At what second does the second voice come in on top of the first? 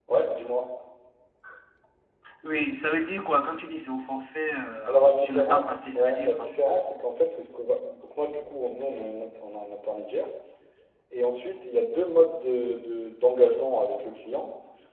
4.9 s

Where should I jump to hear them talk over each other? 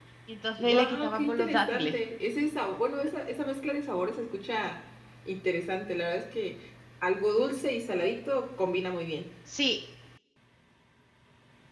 0.6 s

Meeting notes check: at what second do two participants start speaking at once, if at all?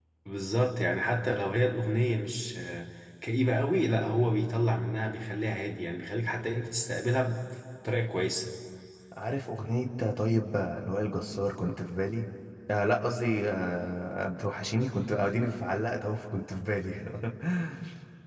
none

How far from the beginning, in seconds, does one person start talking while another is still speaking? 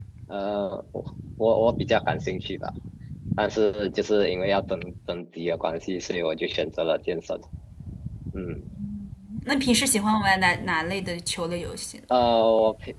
none

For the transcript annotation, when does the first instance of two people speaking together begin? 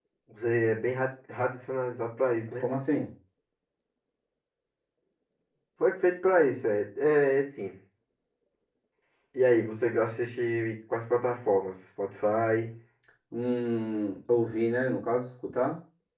none

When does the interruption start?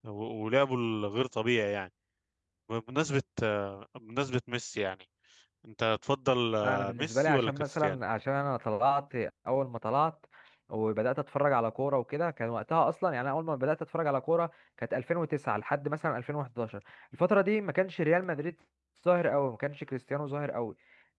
6.6 s

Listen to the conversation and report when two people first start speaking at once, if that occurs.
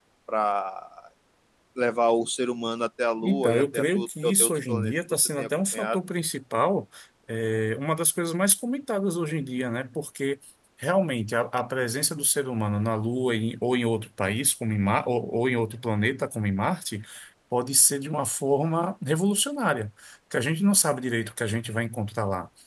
3.2 s

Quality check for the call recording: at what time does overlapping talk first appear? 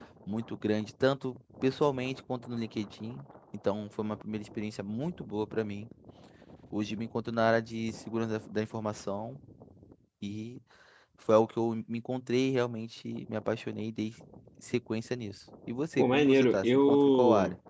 16.0 s

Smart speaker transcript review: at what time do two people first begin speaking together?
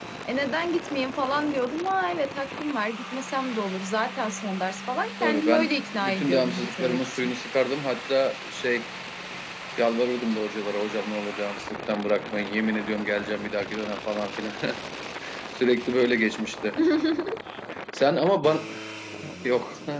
5.2 s

